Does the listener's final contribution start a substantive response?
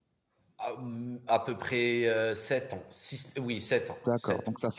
Yes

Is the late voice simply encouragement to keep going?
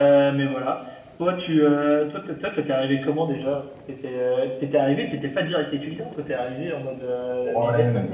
No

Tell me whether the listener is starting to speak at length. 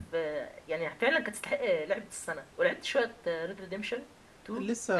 Yes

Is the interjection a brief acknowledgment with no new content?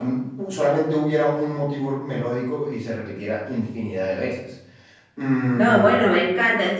No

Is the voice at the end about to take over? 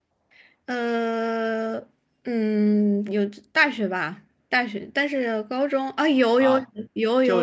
Yes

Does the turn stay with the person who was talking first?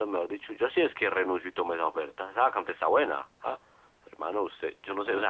Yes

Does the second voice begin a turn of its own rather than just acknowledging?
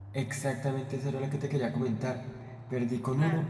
No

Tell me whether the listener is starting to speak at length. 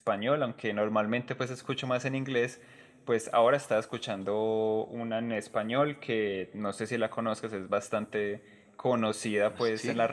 No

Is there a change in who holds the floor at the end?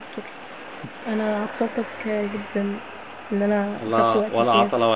Yes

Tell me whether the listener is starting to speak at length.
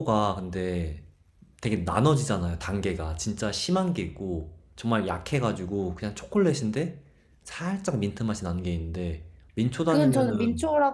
Yes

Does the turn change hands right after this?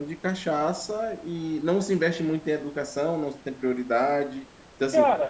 No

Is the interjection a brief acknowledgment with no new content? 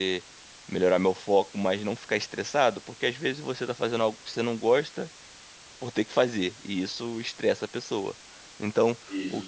Yes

